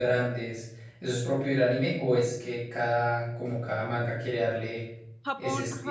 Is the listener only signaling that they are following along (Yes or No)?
No